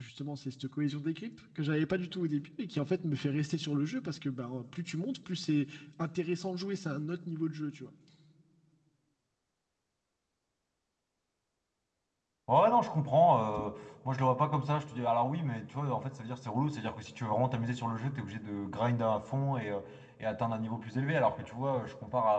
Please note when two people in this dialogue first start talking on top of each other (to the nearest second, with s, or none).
none